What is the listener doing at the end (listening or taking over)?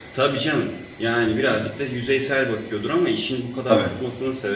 listening